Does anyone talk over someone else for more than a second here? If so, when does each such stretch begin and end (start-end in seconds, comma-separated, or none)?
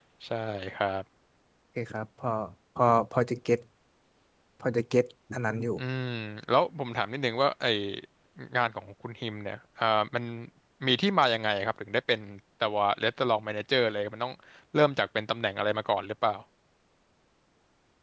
none